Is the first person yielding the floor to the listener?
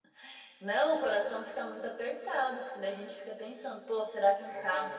No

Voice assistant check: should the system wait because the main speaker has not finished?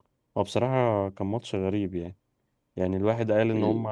Yes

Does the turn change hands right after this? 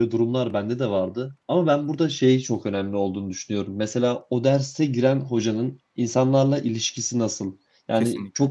No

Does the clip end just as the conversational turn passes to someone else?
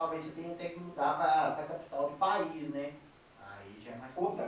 Yes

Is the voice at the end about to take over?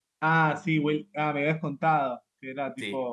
Yes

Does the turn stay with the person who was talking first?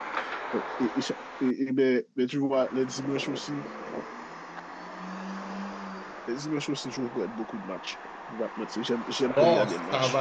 No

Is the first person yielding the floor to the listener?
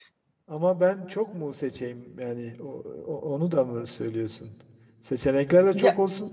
No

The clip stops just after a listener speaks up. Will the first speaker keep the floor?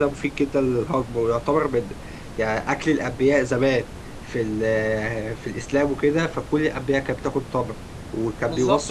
No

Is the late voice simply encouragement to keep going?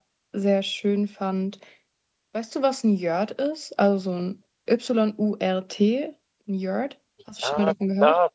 No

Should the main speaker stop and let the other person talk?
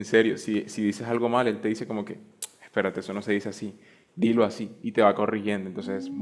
Yes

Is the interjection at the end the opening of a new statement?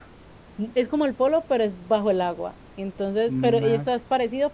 No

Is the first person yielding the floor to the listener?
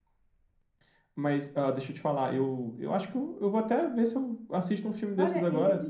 Yes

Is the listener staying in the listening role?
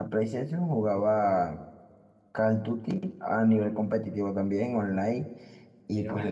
Yes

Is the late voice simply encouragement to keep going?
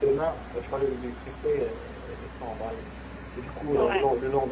Yes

